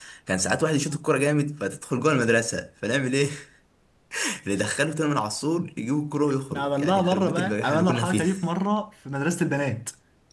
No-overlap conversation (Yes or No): No